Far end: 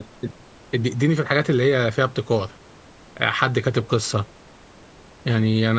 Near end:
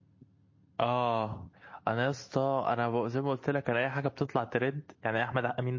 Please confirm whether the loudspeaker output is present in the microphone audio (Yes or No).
No